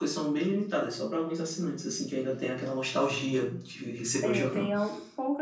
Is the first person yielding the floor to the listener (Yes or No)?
Yes